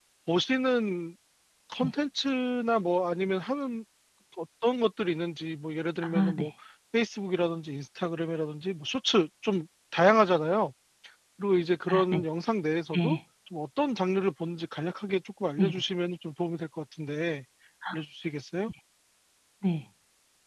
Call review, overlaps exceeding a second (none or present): none